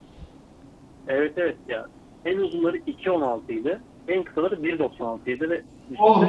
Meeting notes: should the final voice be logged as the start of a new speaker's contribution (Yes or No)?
Yes